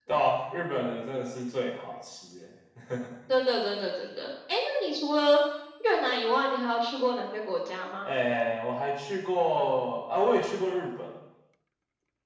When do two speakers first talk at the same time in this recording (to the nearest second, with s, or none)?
none